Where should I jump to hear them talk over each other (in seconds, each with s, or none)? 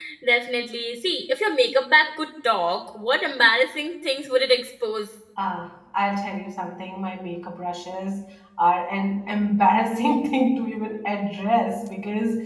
none